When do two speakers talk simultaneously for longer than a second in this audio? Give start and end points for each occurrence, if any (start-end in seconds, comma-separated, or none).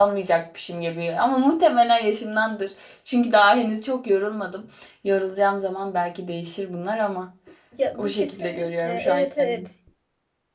8.0-9.7